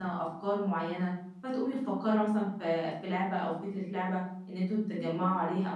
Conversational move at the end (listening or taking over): listening